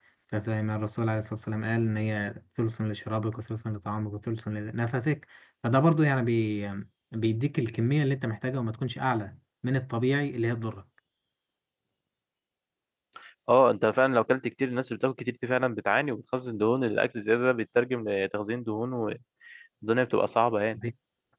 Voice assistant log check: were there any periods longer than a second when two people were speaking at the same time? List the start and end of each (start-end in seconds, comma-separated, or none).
none